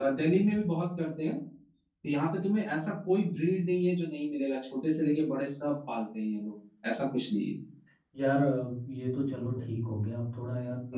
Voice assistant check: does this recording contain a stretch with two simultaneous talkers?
No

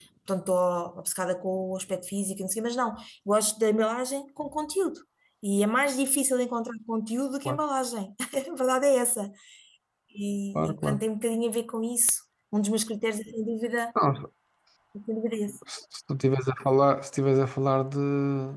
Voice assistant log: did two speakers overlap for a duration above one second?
No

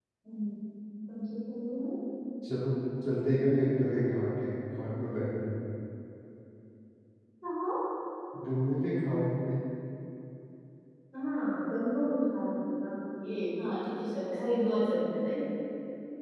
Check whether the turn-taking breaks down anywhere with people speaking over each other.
No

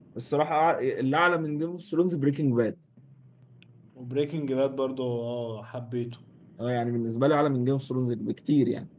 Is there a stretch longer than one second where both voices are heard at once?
No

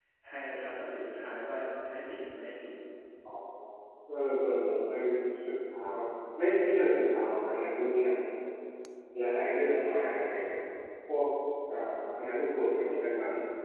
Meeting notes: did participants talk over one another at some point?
No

